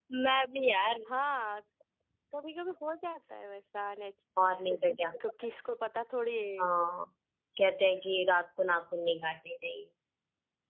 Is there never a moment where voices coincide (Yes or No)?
Yes